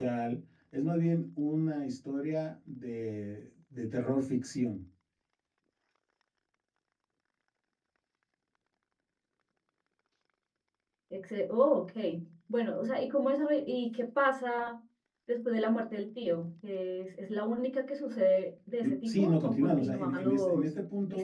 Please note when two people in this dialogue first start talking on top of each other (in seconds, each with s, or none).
18.8 s